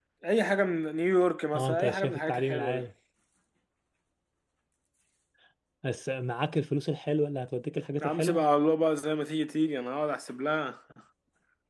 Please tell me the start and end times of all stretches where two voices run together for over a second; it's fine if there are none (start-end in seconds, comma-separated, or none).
1.5-2.8